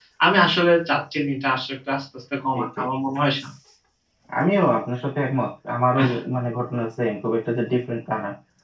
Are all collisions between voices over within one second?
Yes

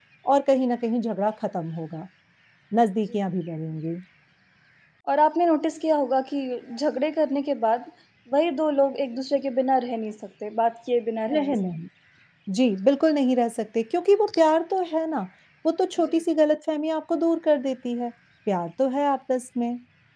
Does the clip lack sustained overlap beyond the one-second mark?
Yes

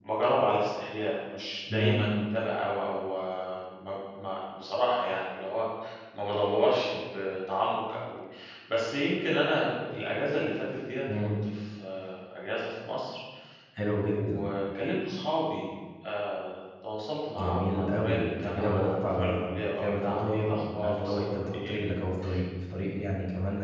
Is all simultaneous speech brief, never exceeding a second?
No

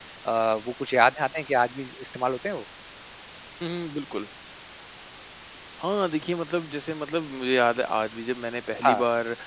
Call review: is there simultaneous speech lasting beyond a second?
No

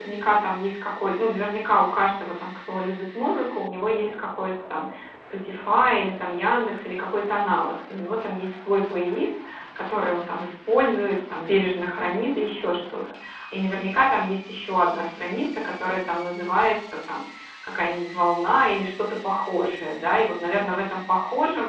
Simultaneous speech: No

